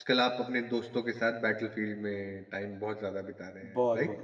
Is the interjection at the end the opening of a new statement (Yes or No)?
Yes